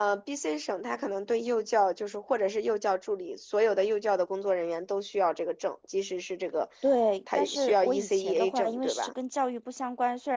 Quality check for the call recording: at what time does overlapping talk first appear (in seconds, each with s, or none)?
7.4 s